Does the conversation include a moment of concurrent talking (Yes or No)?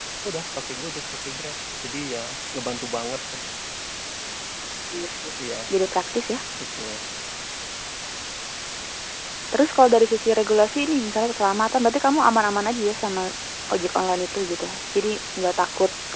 No